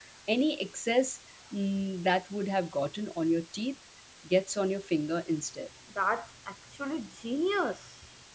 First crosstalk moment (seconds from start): none

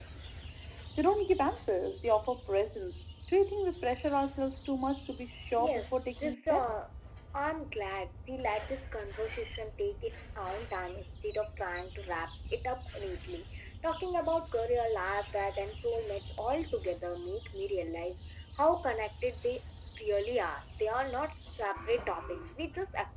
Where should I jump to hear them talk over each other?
5.6 s

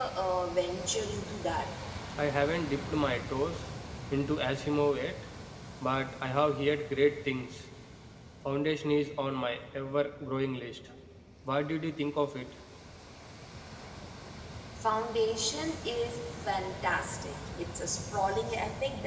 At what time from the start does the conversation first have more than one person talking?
none

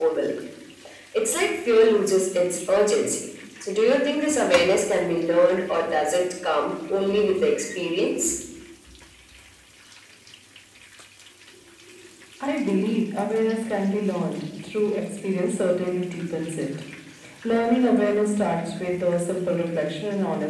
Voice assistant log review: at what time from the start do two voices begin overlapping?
none

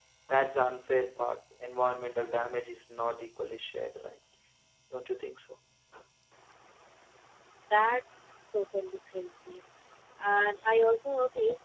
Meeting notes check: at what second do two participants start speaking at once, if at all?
none

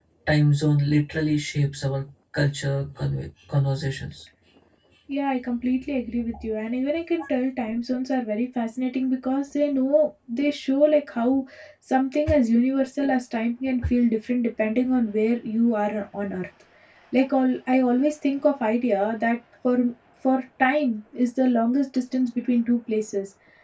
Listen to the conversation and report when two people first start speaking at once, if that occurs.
none

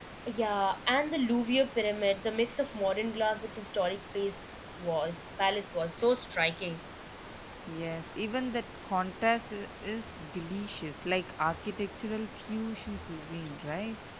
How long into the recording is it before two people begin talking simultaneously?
none

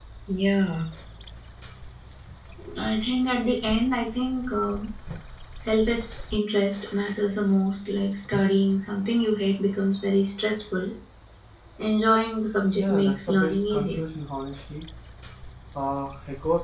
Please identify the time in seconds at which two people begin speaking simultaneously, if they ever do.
12.8 s

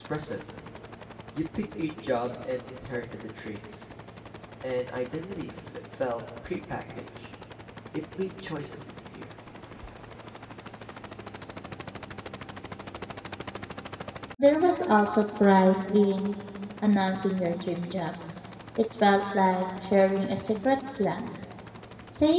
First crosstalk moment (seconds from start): none

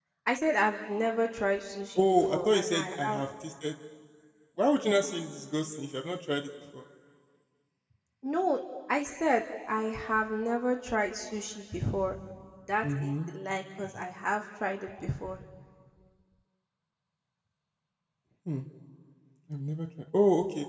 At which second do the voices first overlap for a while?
2.0 s

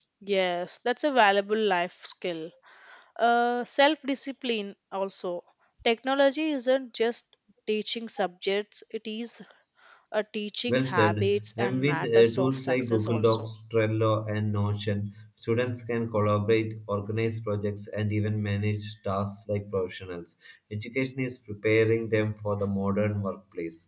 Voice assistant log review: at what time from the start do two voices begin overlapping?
10.7 s

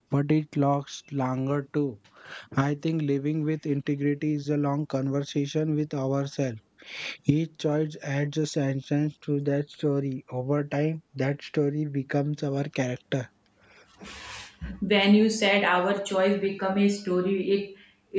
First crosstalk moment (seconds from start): none

